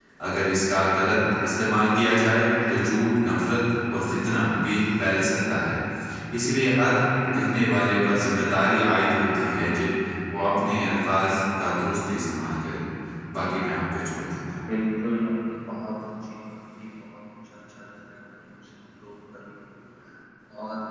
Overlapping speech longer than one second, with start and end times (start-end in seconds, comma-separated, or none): none